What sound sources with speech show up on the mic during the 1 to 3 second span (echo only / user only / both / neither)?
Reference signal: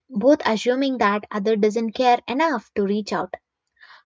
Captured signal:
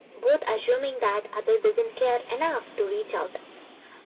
echo only